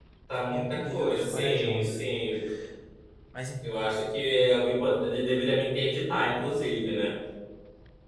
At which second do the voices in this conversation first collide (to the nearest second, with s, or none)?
1 s